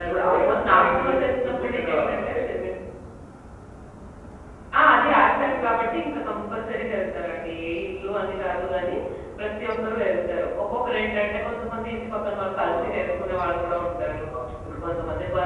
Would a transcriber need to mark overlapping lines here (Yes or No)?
Yes